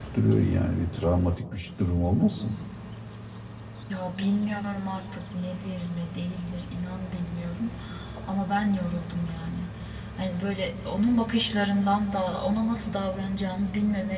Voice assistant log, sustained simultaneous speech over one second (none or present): none